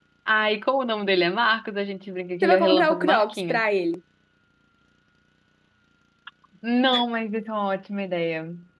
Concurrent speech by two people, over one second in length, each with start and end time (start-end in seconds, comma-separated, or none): 2.4-3.6